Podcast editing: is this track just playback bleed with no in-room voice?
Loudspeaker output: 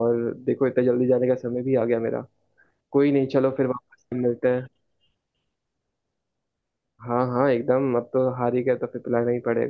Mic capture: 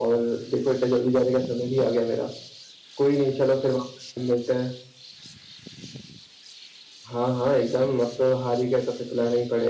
Yes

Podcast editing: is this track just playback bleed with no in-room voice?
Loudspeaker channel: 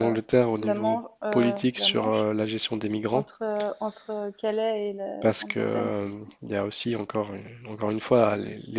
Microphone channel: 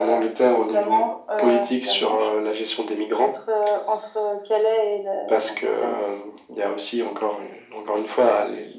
Yes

